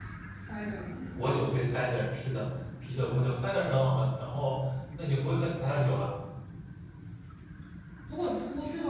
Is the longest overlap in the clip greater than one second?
No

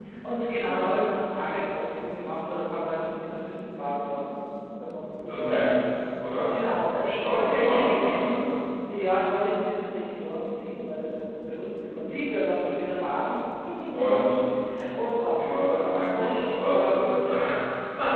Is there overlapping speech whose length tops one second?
Yes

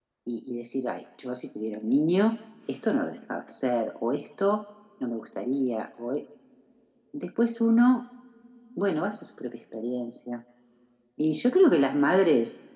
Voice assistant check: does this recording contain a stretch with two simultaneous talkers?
No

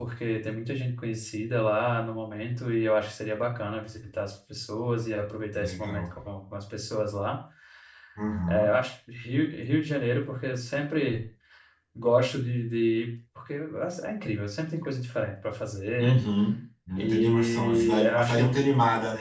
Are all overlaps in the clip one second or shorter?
No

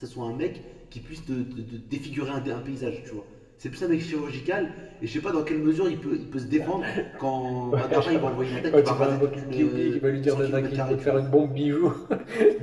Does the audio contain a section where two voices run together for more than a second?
Yes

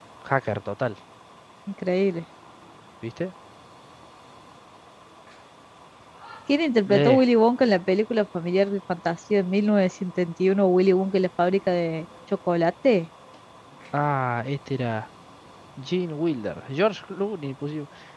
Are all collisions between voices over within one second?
Yes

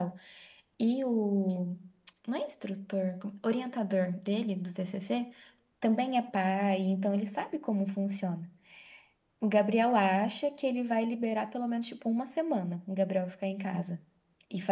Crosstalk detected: No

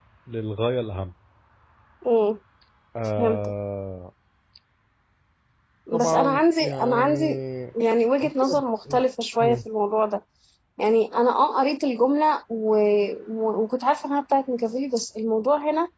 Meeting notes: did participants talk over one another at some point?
Yes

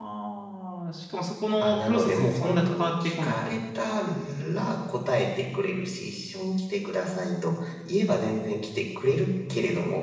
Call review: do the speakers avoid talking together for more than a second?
No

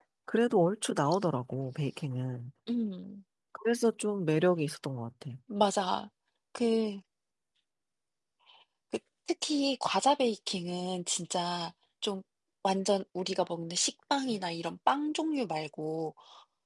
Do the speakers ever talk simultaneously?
No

